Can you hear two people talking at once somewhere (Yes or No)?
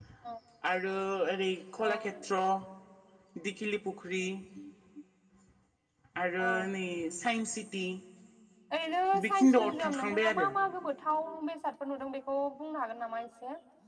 Yes